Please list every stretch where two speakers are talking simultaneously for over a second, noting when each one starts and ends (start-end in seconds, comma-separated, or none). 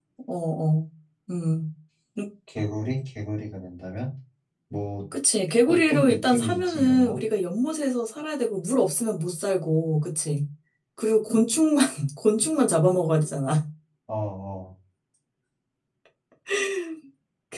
5.7-7.2